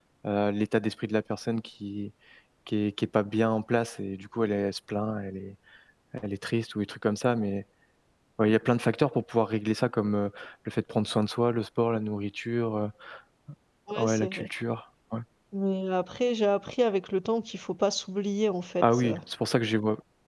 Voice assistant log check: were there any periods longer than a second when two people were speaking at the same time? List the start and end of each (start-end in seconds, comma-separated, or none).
none